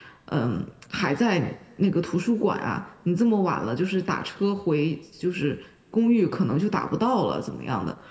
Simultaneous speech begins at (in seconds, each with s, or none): none